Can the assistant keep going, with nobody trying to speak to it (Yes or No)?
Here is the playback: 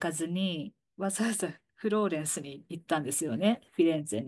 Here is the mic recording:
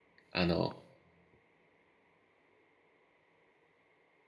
No